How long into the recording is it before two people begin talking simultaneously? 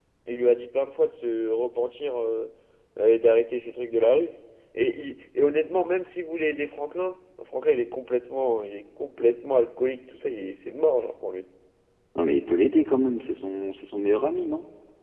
none

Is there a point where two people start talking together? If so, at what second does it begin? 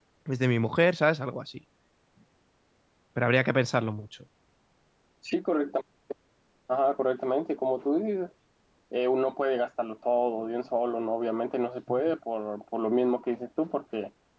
none

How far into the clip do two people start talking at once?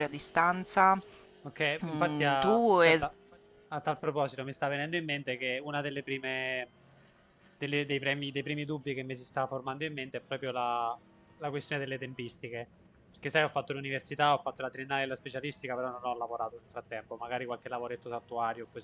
1.8 s

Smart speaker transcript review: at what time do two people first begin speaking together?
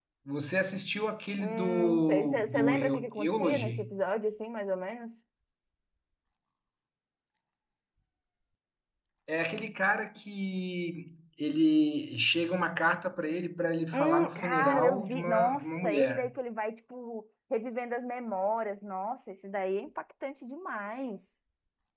1.4 s

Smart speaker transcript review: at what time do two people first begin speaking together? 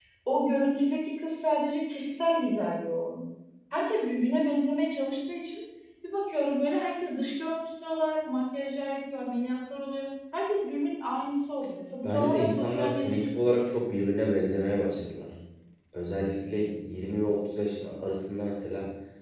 12.0 s

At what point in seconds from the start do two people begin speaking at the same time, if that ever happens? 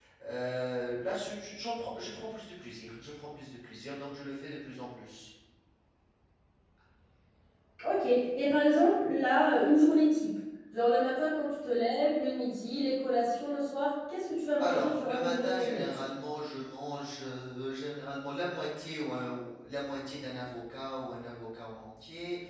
14.6 s

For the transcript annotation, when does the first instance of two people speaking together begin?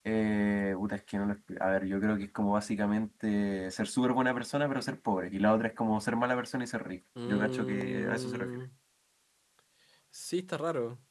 7.2 s

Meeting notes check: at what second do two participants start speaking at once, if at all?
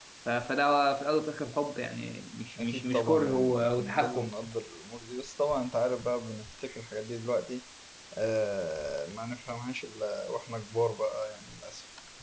2.6 s

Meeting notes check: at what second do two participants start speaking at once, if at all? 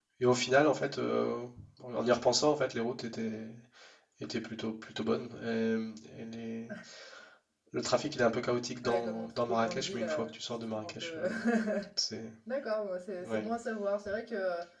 8.8 s

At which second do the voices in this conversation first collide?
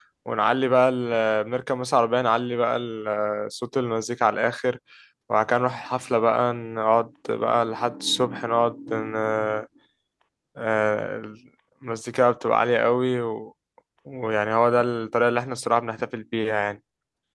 none

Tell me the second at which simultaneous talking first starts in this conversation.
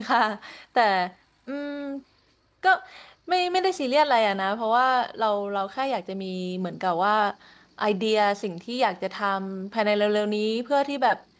none

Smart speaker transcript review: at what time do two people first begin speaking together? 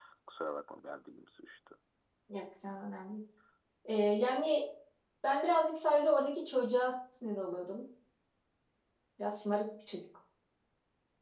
none

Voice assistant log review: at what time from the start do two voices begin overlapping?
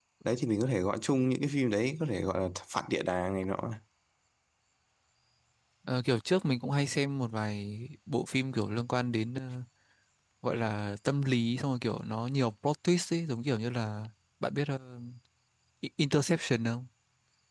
none

